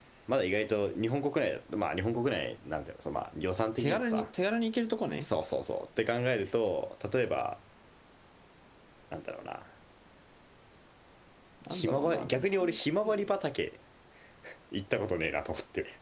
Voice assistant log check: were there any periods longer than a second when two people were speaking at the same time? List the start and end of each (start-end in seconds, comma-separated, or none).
11.7-13.3